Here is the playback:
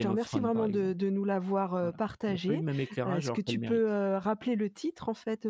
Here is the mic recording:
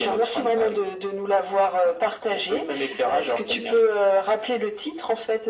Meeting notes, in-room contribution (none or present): none